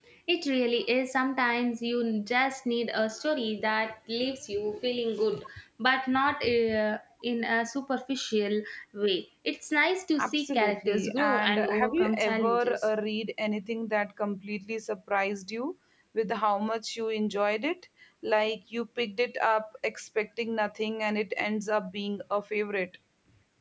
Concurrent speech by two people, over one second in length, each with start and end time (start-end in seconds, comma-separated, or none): 10.2-12.8